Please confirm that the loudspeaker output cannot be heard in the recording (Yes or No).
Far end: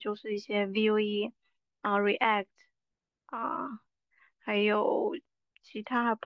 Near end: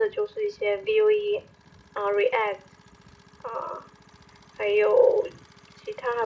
No